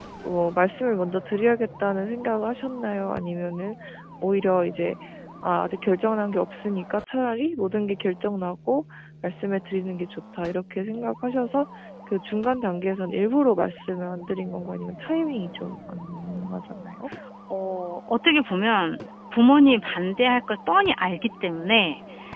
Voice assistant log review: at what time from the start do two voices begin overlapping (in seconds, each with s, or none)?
none